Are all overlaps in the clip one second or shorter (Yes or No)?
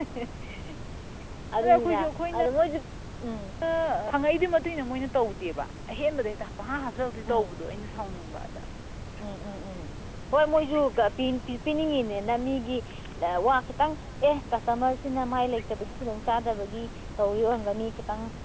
Yes